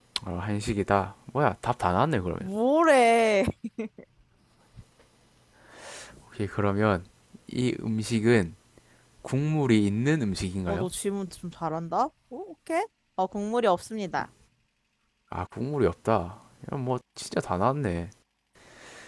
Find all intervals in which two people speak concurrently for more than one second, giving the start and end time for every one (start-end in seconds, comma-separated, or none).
none